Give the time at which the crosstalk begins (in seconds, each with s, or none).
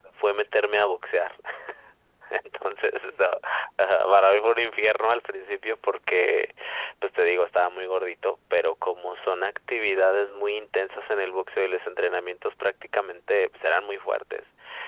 none